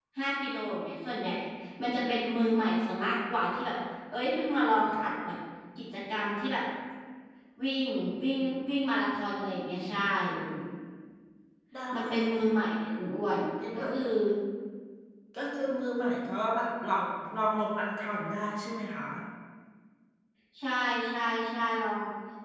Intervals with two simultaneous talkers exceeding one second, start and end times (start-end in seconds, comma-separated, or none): none